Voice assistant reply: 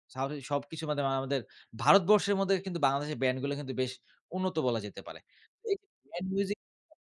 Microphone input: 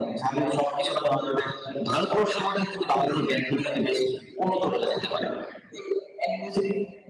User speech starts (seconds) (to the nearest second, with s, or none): none